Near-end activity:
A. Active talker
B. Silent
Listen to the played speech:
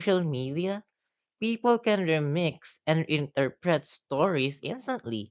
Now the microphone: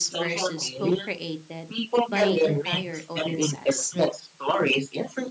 A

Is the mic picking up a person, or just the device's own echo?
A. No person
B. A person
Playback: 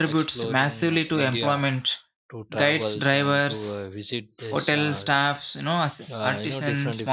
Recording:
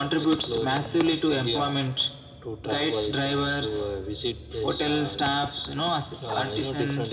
A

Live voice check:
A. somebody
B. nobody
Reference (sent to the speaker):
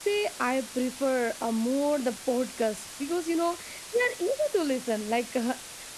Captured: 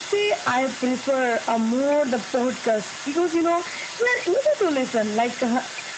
B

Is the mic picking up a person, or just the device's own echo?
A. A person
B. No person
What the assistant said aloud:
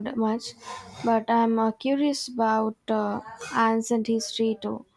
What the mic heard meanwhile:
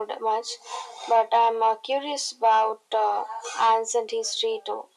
B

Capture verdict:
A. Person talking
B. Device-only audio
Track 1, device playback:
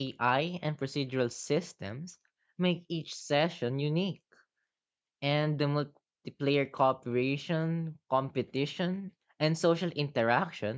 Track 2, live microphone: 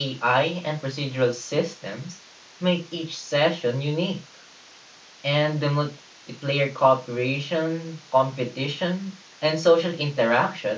B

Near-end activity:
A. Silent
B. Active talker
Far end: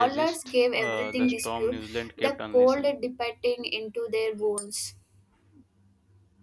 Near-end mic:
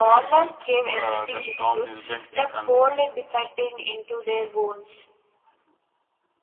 A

